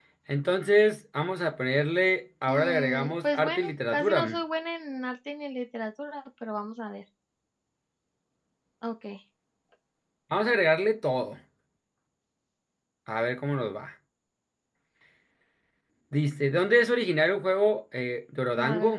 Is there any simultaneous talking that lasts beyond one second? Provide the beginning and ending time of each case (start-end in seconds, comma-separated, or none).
2.5-4.2